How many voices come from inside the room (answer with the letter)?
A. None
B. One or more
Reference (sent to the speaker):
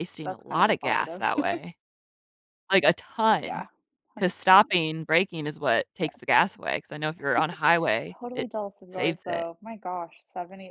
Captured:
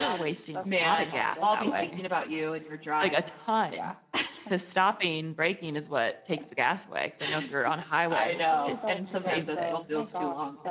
B